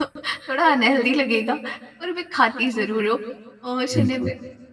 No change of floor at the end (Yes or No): Yes